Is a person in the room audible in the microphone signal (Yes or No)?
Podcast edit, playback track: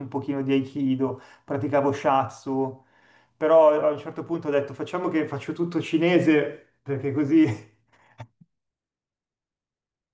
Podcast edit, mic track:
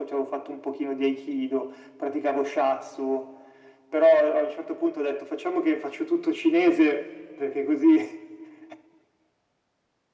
No